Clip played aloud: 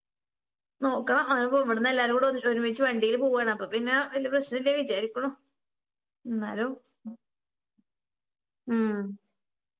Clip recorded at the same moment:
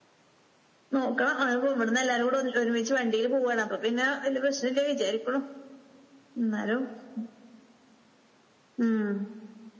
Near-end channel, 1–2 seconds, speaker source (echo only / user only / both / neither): echo only